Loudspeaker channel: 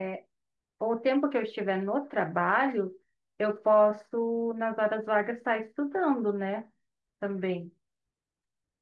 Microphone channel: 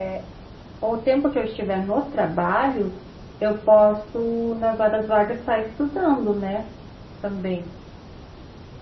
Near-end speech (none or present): none